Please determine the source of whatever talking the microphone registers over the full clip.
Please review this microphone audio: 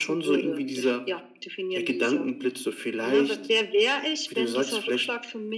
echo only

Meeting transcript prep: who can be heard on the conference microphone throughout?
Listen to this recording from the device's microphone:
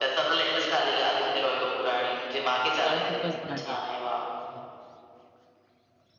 both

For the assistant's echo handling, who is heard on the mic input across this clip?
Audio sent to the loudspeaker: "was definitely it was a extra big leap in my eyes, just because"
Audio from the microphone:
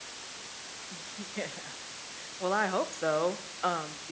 user only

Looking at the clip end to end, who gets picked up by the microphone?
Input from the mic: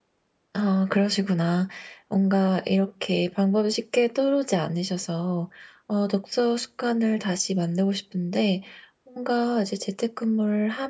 user only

